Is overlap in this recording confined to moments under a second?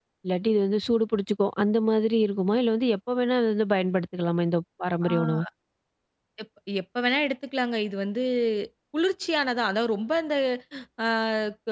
Yes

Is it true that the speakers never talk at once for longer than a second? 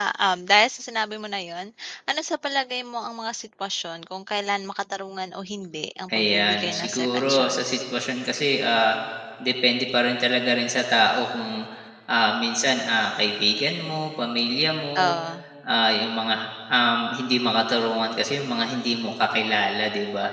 No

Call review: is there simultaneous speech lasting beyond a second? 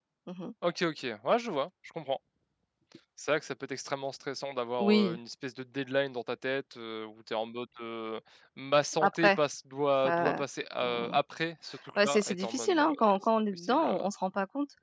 Yes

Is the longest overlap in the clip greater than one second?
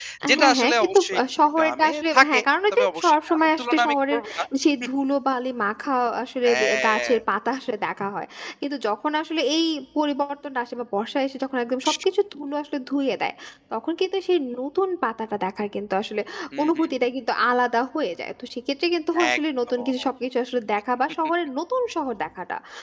Yes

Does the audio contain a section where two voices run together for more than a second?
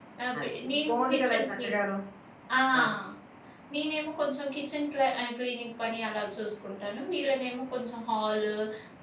Yes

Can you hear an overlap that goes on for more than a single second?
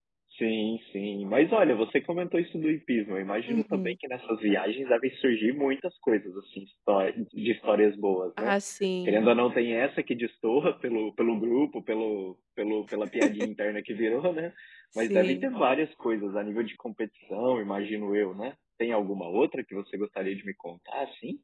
No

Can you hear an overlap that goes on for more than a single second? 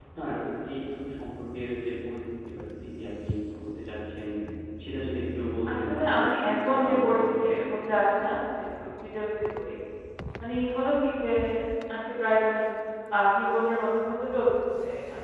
Yes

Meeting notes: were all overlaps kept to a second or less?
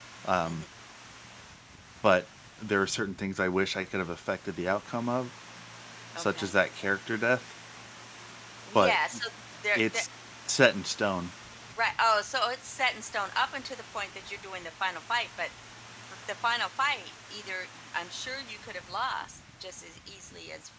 Yes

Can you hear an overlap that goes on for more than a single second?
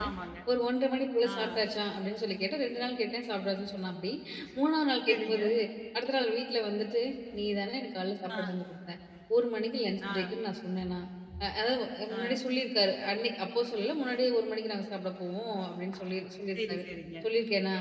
No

